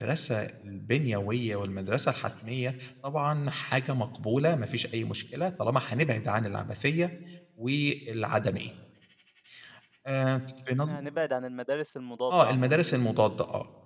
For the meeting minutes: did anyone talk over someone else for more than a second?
No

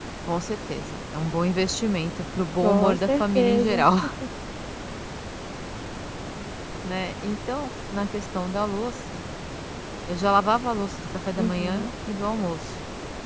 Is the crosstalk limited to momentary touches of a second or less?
No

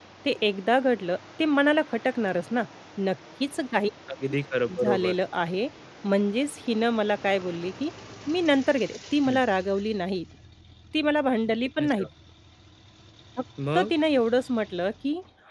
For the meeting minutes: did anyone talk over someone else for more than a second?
No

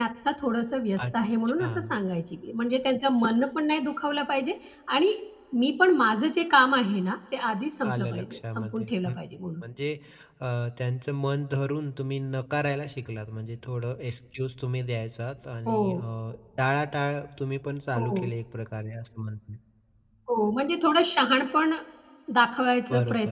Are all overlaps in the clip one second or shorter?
No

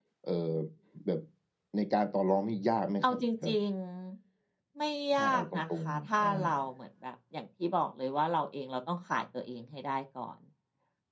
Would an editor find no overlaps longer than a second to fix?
No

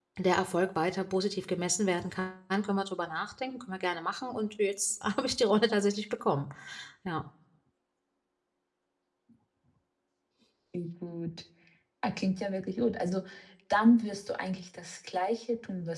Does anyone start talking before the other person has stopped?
No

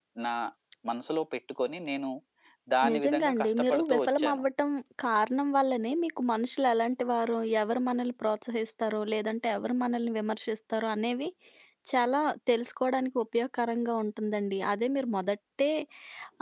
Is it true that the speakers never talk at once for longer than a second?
No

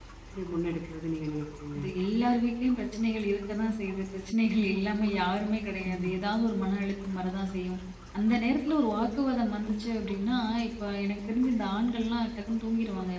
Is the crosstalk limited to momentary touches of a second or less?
Yes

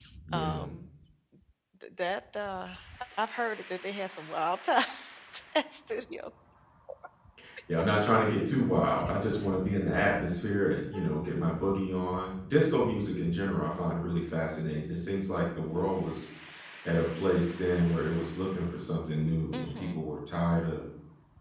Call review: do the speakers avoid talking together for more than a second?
Yes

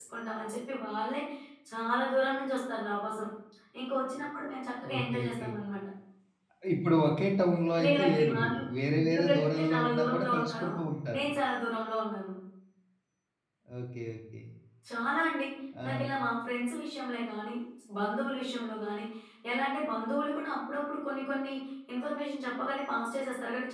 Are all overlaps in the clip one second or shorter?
No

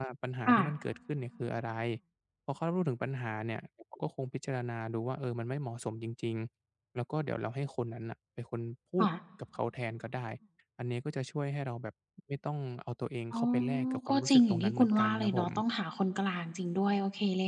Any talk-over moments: Yes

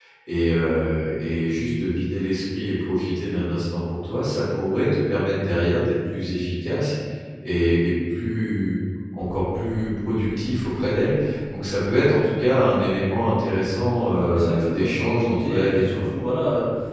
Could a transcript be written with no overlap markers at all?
No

